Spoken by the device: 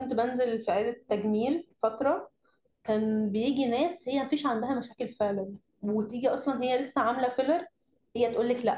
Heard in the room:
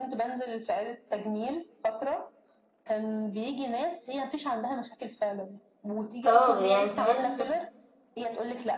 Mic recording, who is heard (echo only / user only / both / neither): both